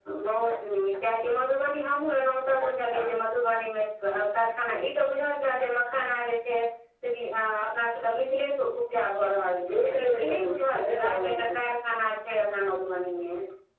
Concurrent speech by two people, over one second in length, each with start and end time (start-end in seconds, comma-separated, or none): 9.8-11.6